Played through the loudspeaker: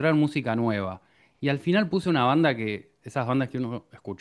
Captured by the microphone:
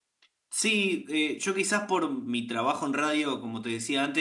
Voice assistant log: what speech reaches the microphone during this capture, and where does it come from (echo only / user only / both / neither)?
user only